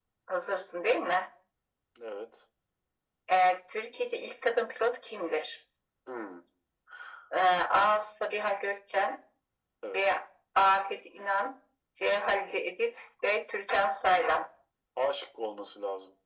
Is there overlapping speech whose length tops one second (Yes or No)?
No